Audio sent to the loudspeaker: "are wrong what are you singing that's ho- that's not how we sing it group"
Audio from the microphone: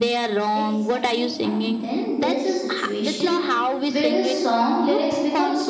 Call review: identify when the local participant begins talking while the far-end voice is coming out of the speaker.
0.5 s

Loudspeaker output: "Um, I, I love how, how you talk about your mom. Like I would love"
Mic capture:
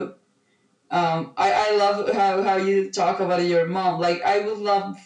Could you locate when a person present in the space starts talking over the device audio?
none

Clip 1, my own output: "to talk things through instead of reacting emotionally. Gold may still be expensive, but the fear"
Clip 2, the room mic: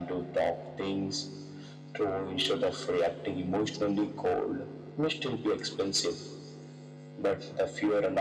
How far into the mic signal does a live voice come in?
none

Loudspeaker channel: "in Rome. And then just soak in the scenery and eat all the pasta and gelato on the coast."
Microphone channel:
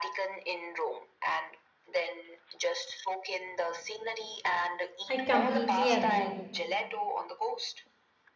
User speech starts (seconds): 5.1 s

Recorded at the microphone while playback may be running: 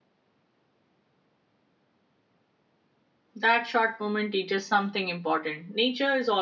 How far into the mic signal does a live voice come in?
3.4 s

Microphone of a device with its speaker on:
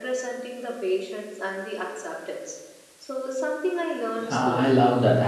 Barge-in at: 4.3 s

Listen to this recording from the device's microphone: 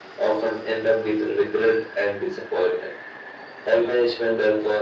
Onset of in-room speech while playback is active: none

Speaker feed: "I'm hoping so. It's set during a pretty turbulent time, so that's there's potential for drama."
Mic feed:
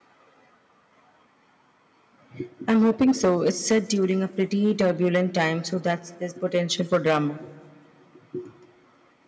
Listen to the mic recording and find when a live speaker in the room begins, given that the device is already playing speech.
none

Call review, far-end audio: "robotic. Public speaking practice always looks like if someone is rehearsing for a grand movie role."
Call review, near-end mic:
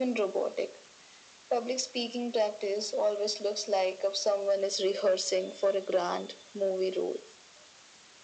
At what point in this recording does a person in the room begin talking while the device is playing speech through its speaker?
none

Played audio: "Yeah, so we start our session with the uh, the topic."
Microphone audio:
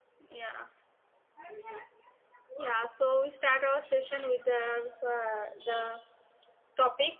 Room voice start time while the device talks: none

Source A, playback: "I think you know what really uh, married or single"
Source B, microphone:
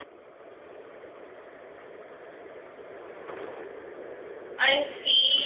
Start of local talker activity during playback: 4.6 s

